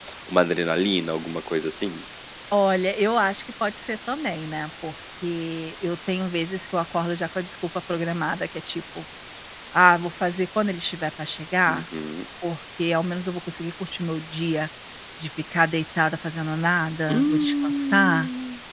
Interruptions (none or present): present